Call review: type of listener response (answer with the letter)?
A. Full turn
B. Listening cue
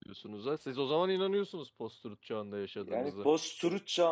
A